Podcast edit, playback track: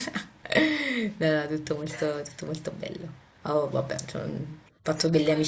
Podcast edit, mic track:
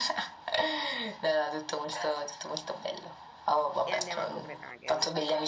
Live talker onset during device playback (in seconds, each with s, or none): 3.9 s